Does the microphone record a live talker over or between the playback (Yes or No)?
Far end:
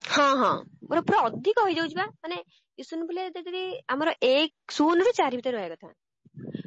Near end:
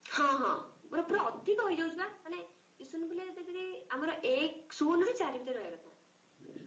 No